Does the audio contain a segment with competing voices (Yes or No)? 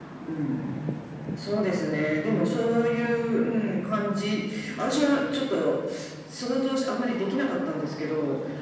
No